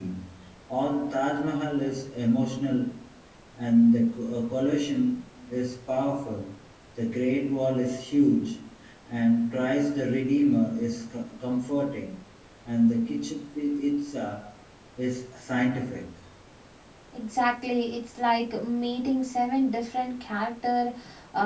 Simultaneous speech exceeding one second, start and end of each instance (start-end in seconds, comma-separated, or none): none